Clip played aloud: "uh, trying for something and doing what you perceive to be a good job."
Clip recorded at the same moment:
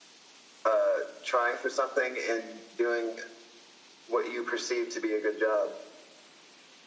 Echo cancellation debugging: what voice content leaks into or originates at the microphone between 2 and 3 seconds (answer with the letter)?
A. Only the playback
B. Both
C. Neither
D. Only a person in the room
A